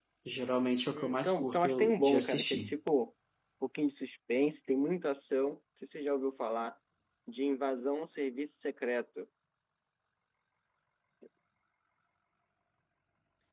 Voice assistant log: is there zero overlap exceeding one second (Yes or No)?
No